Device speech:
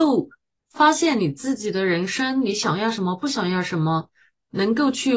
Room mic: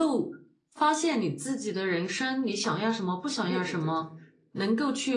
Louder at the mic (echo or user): echo